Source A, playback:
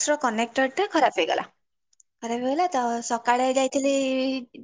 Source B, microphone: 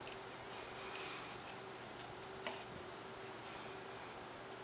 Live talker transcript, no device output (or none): none